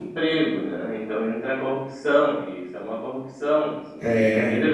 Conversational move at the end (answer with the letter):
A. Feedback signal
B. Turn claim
A